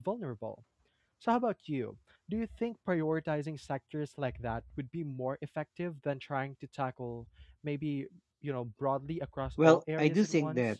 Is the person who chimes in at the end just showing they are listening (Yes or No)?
No